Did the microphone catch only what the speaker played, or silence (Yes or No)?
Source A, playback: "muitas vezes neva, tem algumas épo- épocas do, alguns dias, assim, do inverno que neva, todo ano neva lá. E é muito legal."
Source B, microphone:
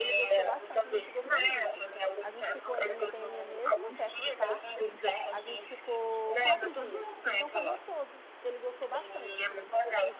No